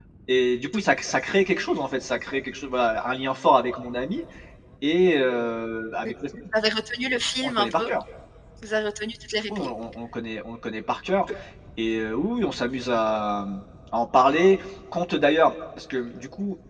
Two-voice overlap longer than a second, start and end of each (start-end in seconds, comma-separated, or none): none